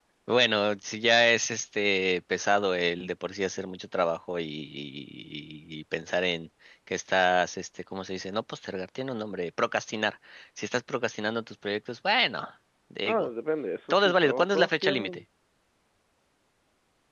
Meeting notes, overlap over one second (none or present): present